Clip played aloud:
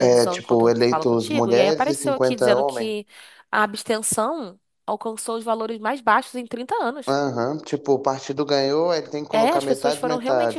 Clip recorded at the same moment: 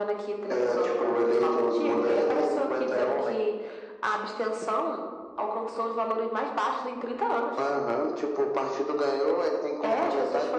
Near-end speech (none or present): none